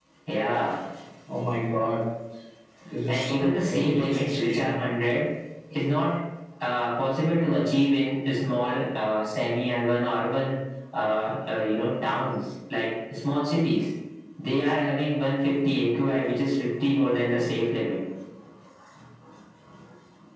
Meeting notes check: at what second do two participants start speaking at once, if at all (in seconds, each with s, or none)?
3.1 s